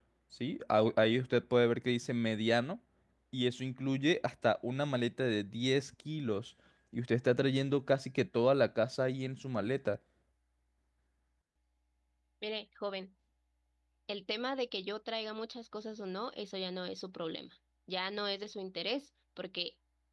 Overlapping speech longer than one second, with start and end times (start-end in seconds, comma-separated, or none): none